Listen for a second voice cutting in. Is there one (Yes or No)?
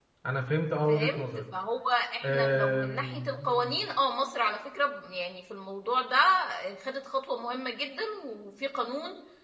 Yes